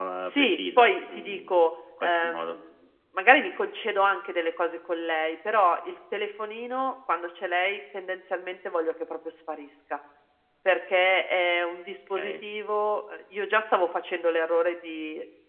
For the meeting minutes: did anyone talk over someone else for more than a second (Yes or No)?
Yes